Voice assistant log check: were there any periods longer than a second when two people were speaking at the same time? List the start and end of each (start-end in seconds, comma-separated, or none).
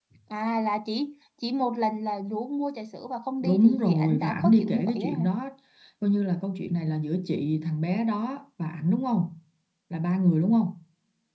3.4-5.3